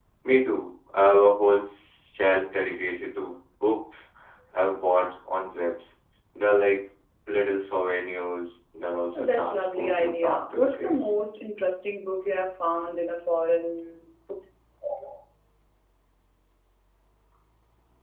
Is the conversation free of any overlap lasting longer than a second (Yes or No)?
No